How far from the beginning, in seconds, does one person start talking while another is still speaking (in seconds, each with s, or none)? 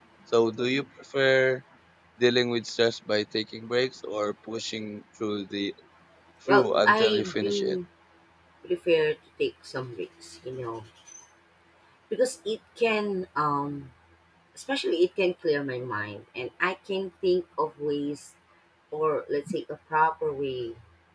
6.5 s